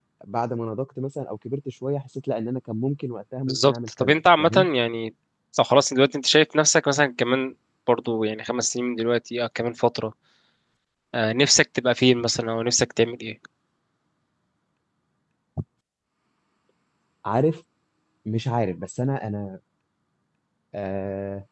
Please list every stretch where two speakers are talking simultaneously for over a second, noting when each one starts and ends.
3.5-4.7

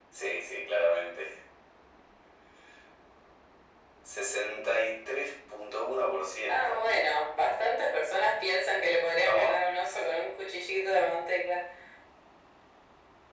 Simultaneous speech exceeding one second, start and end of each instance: none

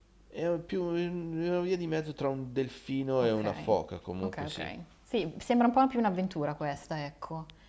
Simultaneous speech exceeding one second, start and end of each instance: none

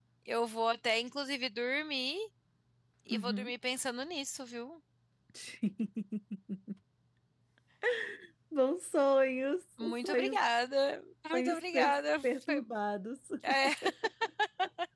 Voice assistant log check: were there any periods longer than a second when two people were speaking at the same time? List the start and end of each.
11.3-12.6

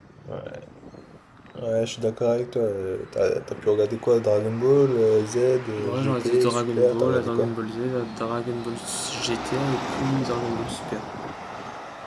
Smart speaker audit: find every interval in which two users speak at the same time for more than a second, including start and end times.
5.8-7.5

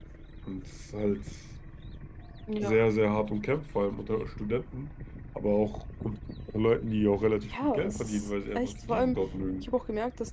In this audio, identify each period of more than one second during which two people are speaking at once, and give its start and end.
7.5-9.2

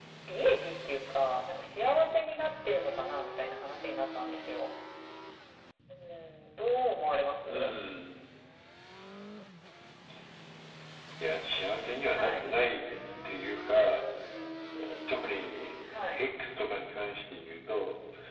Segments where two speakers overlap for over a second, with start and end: none

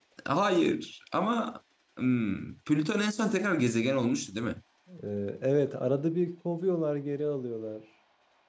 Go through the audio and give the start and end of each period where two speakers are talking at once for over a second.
none

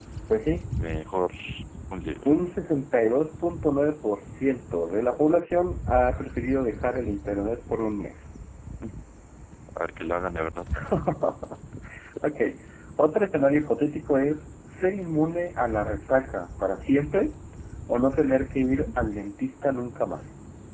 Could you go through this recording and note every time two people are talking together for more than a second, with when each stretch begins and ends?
none

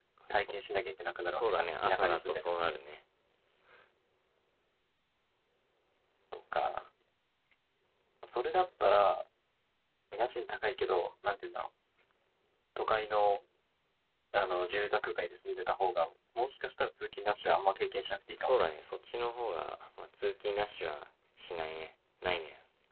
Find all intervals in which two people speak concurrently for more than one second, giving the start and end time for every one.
1.3-2.6

